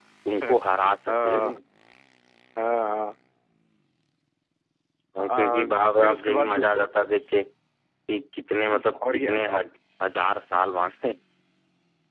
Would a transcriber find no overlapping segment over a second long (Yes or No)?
No